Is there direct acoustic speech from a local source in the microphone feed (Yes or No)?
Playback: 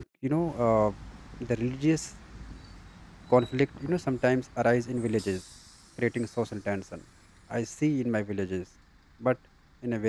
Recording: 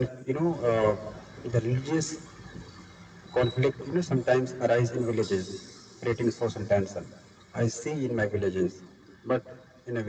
No